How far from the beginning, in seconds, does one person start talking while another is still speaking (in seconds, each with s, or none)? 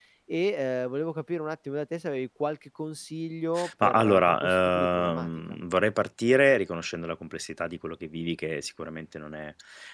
3.8 s